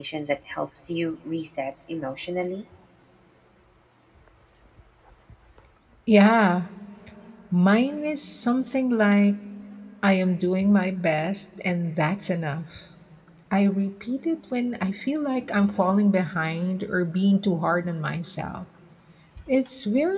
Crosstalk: none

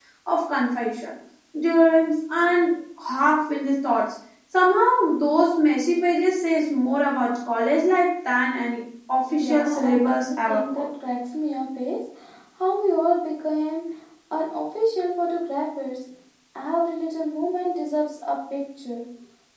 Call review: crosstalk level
present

